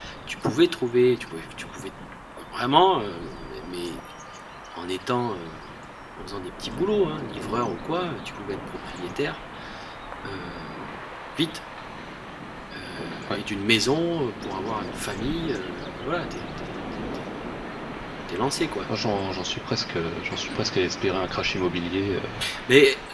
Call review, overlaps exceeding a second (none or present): none